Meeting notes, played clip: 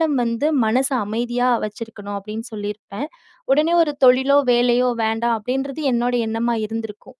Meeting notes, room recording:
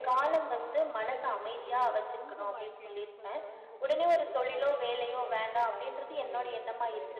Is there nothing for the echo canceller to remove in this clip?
No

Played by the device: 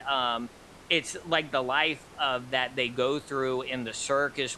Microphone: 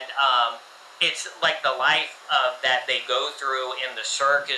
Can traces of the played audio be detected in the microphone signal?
Yes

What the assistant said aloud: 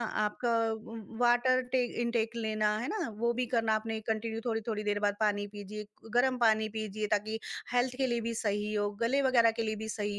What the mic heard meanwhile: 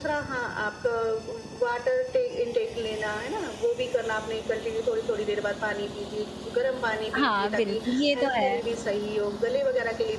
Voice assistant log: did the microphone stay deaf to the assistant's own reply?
No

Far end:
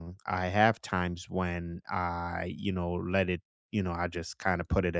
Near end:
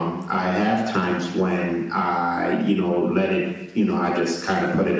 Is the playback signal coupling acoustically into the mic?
Yes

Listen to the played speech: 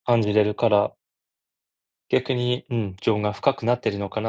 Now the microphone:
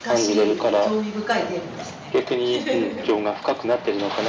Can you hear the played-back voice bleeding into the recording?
Yes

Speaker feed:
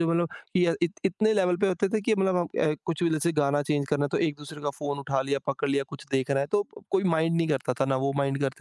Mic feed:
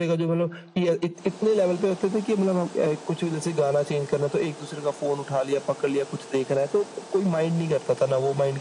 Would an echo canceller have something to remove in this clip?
Yes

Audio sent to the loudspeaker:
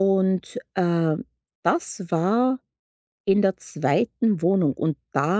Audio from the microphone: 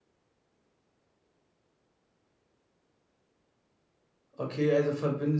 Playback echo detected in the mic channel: No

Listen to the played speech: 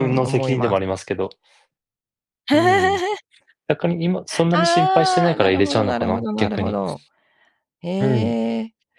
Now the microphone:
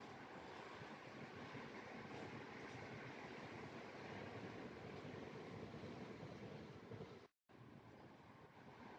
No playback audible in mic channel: Yes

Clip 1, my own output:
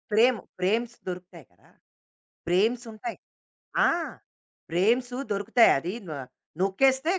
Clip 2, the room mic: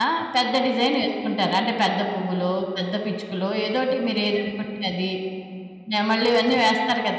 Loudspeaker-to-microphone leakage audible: No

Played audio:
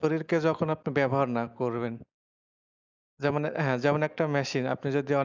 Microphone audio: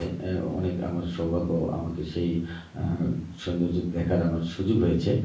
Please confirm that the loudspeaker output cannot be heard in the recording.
Yes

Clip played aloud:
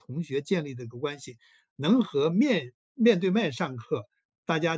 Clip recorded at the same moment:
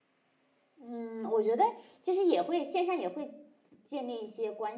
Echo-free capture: Yes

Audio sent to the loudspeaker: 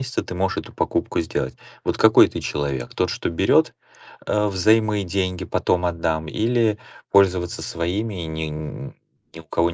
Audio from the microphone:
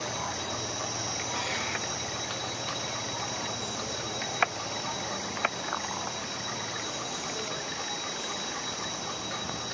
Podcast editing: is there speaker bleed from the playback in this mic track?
No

